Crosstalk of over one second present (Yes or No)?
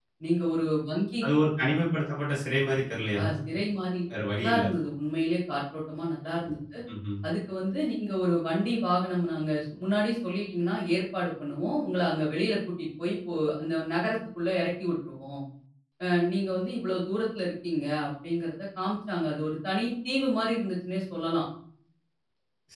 No